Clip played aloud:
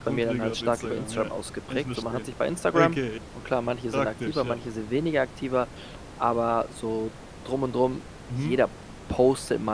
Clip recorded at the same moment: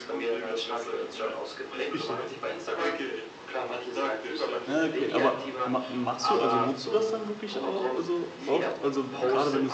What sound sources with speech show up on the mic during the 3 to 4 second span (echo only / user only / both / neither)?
echo only